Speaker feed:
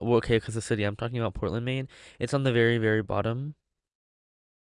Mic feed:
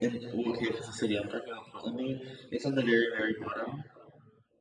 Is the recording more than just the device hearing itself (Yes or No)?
No